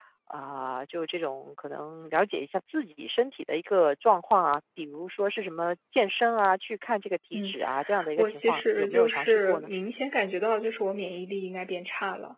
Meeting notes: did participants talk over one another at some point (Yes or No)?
Yes